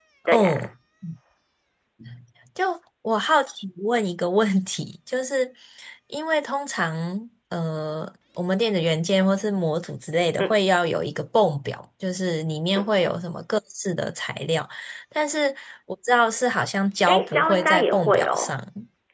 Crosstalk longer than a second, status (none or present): present